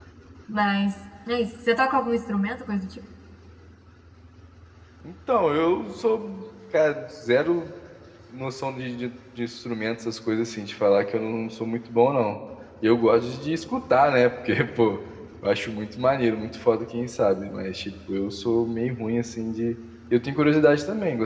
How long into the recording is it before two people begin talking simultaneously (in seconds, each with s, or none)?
none